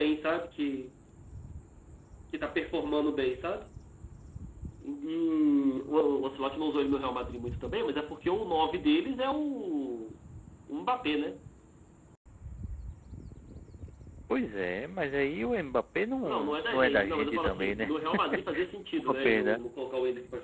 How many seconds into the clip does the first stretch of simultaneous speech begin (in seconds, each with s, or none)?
16.2 s